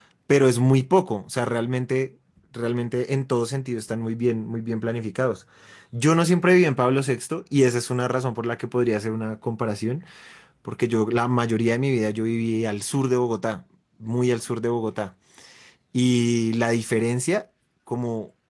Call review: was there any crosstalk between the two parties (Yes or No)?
No